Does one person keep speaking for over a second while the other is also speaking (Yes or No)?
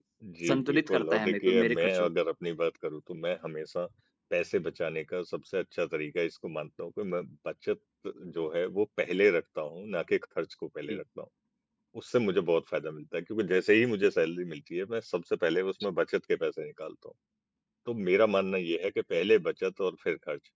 Yes